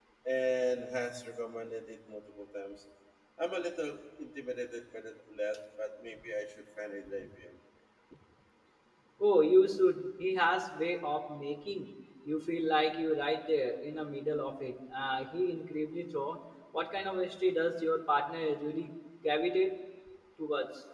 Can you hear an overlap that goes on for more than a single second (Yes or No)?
No